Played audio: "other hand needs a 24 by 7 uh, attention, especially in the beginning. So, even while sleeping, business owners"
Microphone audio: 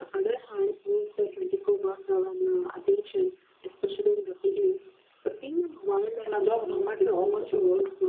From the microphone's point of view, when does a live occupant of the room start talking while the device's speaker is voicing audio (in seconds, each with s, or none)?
6.2 s